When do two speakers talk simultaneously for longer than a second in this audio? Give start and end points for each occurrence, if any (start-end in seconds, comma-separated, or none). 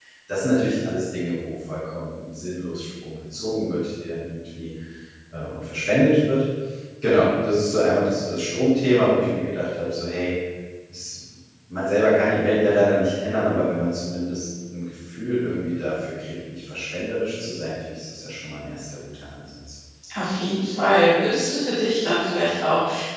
none